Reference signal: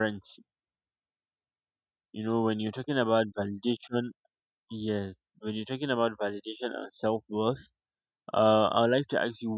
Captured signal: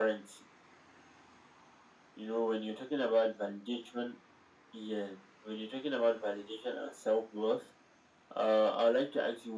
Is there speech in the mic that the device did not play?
No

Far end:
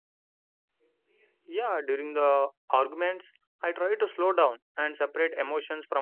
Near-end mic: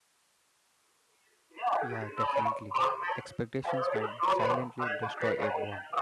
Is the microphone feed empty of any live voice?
No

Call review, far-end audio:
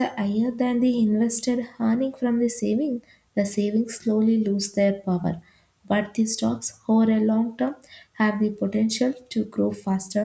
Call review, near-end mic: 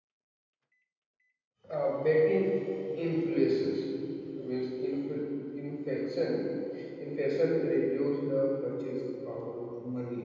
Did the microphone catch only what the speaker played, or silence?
No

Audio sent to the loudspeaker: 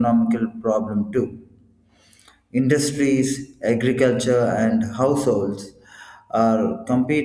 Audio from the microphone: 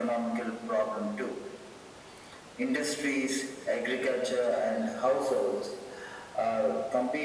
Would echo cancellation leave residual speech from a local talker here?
No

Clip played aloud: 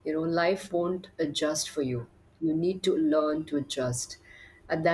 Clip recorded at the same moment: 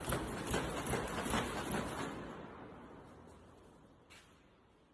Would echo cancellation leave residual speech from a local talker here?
No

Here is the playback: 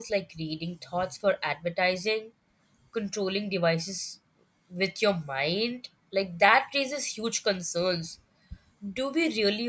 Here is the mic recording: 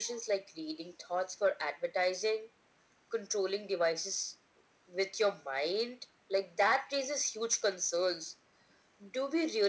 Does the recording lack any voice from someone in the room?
Yes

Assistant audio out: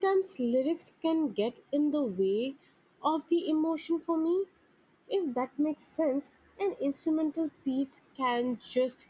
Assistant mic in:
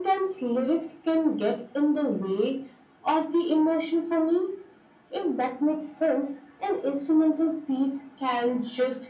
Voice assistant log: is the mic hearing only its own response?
Yes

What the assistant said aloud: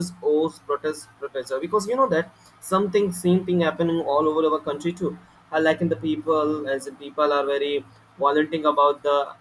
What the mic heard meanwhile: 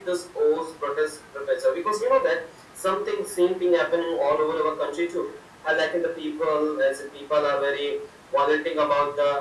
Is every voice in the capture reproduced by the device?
Yes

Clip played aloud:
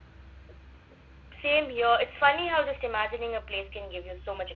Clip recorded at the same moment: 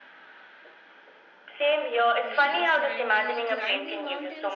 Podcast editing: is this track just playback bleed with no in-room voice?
No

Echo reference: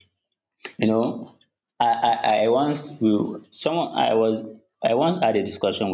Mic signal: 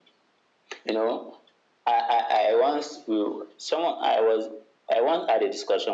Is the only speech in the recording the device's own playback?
Yes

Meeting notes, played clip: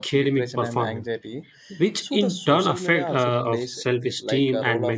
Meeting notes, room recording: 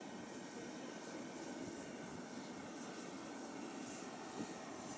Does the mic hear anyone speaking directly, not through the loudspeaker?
No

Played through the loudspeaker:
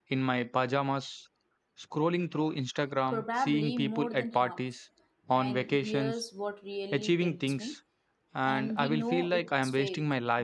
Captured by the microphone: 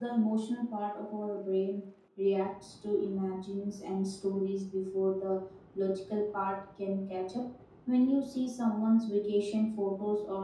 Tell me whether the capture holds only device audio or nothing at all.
No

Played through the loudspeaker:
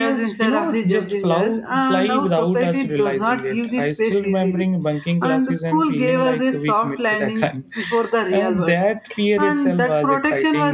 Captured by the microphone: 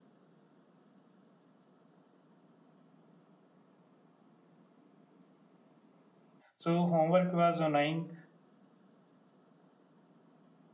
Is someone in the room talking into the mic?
Yes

